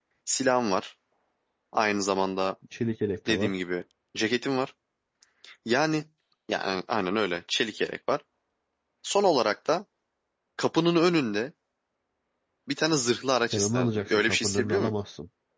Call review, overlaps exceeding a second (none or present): present